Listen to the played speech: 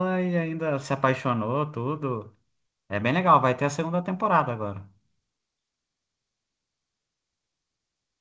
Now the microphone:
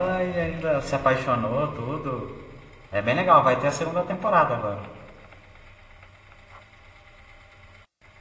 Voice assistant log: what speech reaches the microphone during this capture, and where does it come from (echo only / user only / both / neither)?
echo only